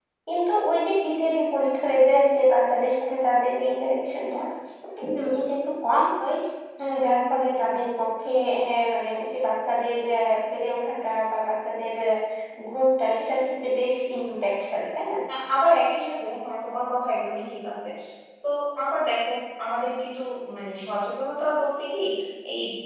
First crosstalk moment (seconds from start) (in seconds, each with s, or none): none